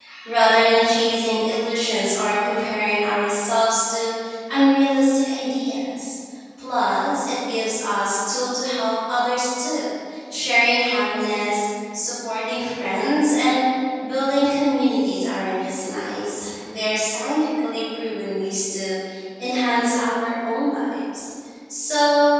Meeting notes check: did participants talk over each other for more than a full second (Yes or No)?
No